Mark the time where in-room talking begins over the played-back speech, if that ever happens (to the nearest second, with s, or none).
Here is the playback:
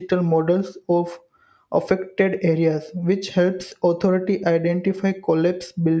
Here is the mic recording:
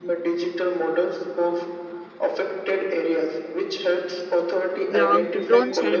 5 s